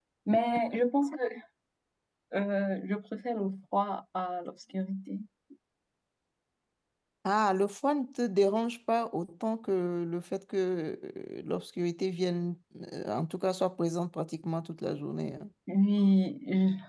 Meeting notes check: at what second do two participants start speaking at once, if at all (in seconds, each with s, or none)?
none